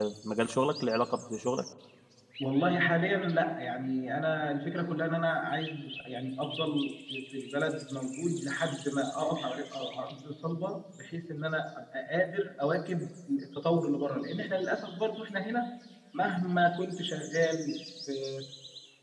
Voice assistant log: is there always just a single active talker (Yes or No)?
Yes